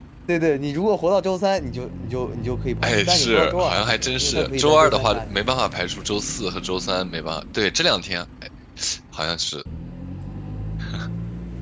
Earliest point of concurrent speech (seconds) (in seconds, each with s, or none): 2.8 s